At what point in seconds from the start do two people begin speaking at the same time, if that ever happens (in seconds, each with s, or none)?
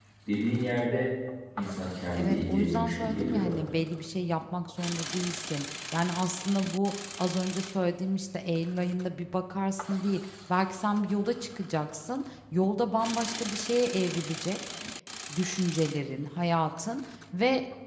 2.1 s